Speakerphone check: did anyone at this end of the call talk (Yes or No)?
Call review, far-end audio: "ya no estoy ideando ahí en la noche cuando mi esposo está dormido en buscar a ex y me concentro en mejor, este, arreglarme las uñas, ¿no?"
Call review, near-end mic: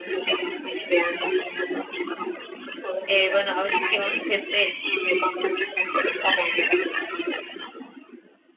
Yes